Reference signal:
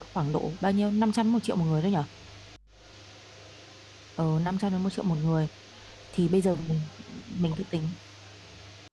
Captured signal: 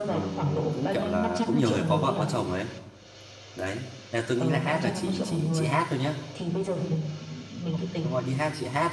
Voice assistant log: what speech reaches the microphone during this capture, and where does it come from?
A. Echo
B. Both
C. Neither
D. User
B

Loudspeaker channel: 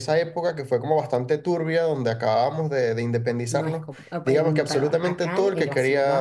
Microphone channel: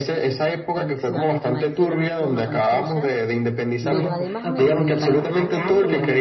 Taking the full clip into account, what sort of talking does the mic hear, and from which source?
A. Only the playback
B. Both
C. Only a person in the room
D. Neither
B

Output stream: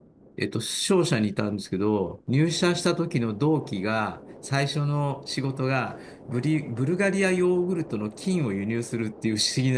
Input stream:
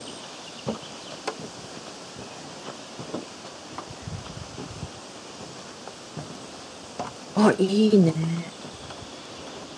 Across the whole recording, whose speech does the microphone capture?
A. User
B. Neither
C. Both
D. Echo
A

